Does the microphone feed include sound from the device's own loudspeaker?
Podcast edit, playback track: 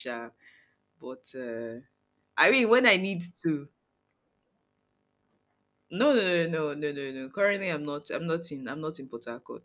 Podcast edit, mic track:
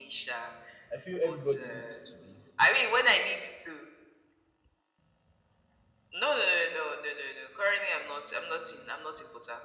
Yes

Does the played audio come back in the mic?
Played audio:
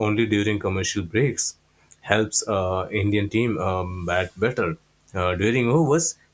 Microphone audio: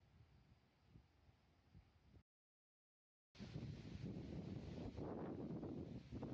No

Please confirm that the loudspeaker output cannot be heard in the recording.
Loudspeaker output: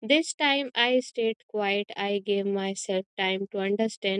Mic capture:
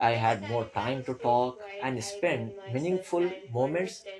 No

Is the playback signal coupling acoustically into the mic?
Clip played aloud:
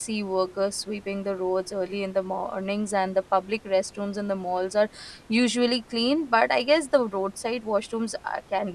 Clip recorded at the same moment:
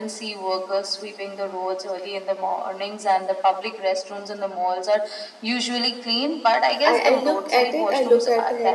Yes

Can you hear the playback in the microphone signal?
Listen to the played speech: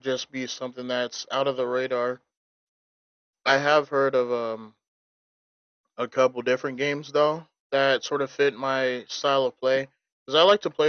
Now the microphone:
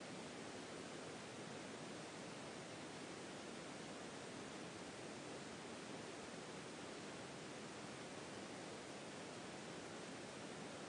No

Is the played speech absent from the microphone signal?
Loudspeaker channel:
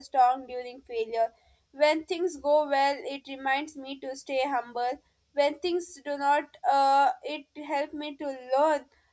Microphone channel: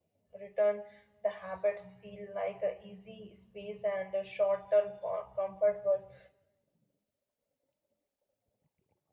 Yes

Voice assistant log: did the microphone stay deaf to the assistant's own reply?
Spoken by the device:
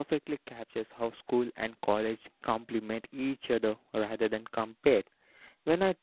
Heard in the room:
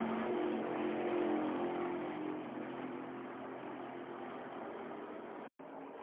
Yes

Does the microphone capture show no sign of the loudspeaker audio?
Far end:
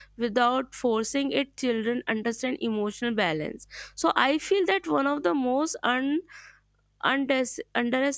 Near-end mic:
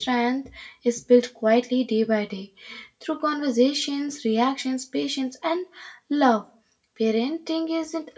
Yes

